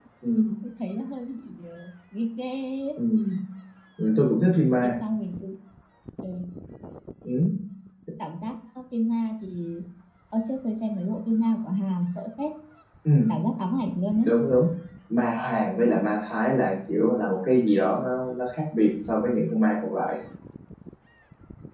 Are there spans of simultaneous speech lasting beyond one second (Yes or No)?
No